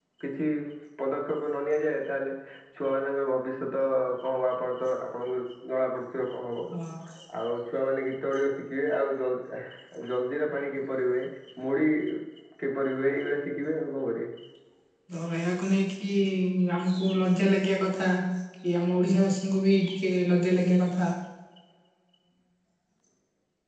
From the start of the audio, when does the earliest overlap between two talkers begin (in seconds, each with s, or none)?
none